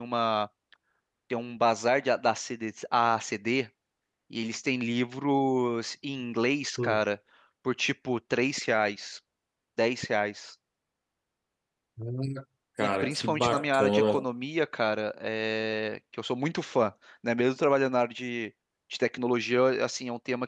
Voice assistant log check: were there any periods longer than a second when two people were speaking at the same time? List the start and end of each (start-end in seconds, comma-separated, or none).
12.8-14.2